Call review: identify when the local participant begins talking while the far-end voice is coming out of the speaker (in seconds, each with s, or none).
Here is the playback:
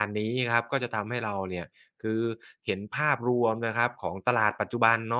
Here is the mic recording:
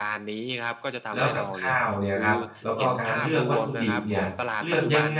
1.1 s